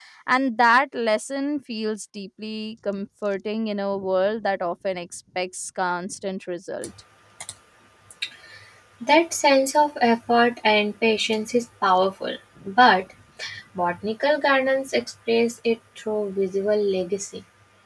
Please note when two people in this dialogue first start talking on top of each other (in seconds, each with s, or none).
none